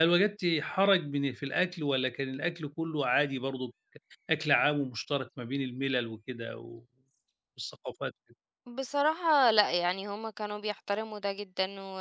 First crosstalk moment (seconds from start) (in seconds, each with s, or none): none